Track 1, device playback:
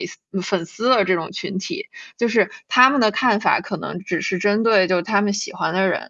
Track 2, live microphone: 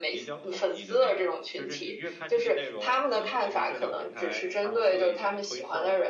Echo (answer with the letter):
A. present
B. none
A